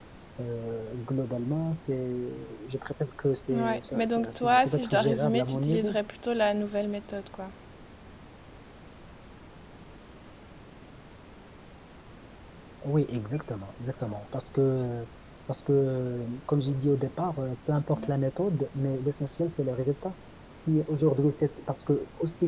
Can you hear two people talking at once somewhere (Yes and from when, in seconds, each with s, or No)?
Yes, from 3.5 s